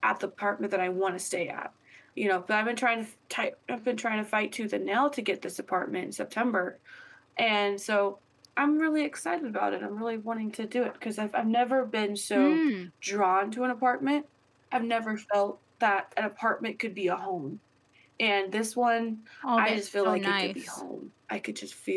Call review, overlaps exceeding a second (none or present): present